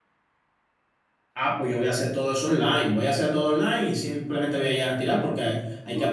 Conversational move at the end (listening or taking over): listening